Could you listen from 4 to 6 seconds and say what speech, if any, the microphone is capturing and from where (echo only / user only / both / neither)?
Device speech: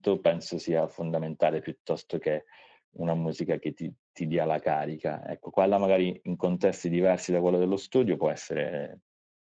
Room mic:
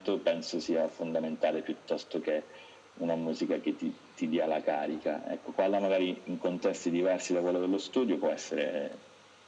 echo only